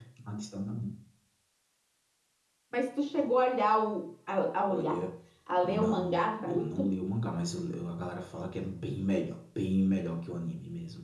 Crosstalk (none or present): present